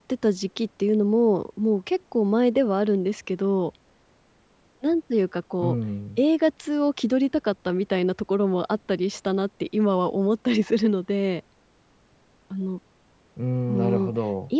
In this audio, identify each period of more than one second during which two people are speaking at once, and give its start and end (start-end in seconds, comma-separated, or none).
none